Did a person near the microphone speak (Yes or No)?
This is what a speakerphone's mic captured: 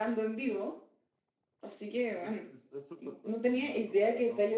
Yes